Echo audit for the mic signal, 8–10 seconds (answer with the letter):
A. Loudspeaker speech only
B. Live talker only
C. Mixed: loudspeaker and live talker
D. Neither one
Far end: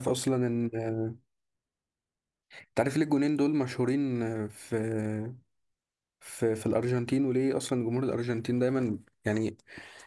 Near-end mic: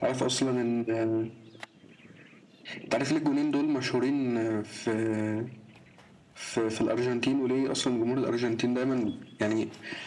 A